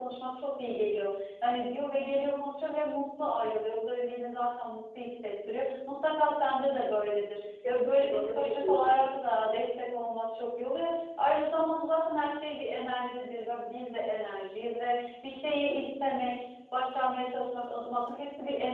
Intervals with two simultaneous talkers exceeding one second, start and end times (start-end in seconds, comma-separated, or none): 7.7-9.0